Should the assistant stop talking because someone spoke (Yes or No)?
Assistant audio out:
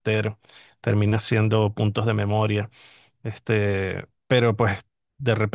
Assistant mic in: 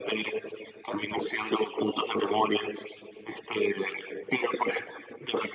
No